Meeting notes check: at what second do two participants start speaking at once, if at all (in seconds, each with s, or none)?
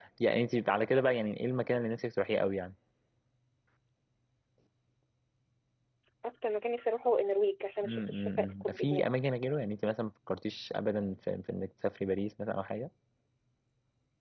7.8 s